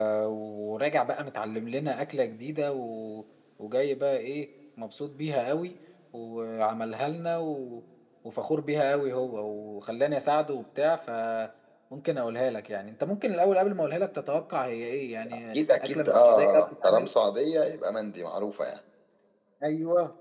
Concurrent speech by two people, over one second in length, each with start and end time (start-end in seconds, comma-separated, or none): 15.3-17.1